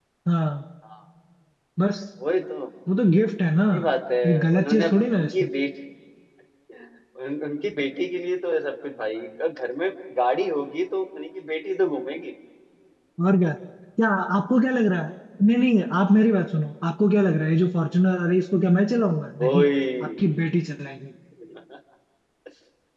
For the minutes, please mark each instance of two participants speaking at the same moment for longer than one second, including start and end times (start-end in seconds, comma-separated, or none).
4.2-5.5